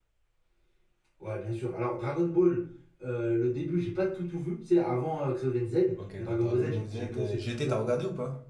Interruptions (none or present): present